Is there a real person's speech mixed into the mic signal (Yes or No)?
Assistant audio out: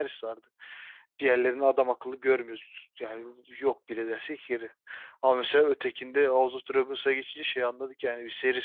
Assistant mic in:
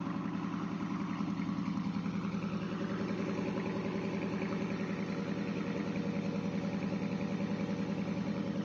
No